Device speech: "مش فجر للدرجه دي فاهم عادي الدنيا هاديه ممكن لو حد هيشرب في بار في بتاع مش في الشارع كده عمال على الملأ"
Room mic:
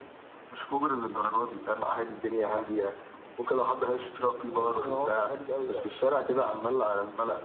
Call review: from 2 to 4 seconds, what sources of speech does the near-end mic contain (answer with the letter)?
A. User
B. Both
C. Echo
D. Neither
C